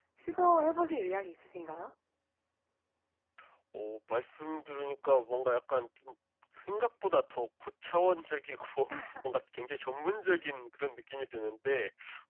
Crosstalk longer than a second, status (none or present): none